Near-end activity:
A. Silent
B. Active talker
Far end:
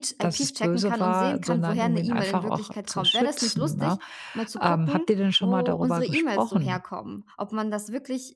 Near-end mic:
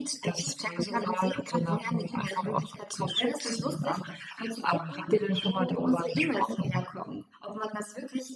A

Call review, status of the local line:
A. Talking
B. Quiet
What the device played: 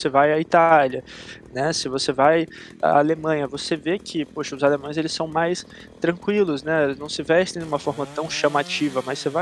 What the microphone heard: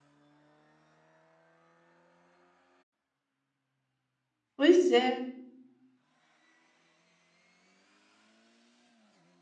A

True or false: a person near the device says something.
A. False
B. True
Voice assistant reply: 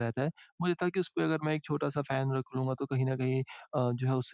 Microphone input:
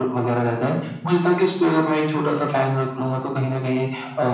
A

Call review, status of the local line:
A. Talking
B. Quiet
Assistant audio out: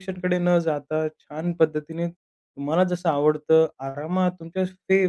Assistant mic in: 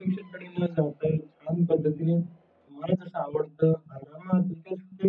B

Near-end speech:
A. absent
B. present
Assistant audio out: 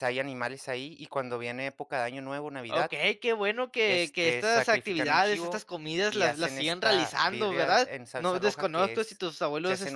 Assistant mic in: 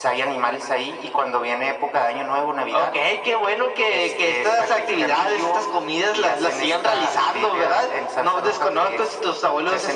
A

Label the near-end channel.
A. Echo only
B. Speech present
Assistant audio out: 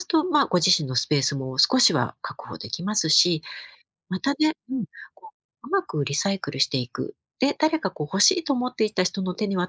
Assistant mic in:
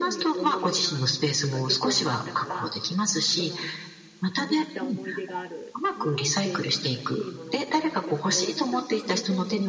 B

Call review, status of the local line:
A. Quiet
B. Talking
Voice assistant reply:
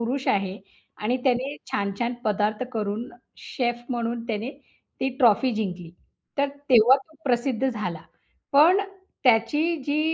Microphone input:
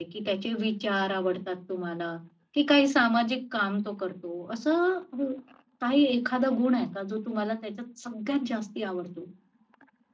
B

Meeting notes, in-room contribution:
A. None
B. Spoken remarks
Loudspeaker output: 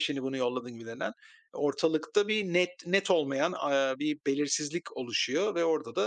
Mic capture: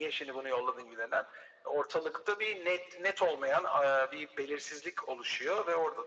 A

